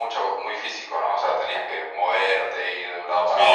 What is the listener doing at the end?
taking over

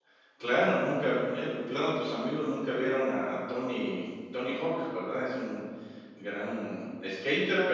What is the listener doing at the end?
taking over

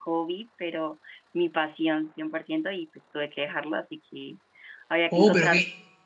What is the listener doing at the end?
taking over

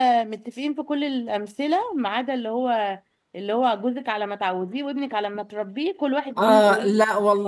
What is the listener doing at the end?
taking over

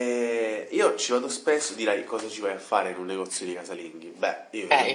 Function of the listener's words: listening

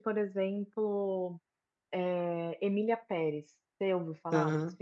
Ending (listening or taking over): taking over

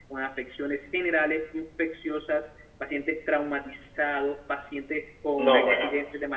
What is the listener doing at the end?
listening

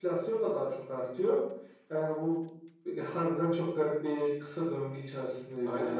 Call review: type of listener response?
taking over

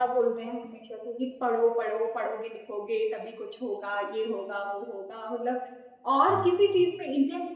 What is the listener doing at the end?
listening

